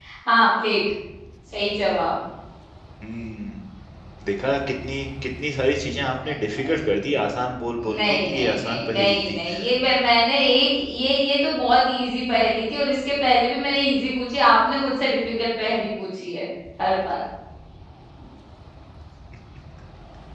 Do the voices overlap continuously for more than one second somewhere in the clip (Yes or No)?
Yes